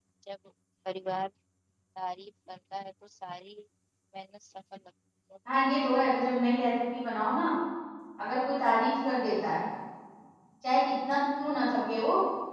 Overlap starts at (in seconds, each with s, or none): none